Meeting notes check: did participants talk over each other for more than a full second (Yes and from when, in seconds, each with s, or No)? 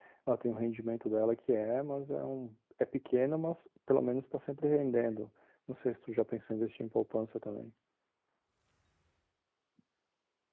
No